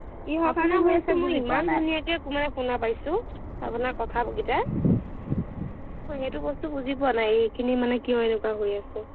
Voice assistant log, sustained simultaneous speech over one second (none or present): present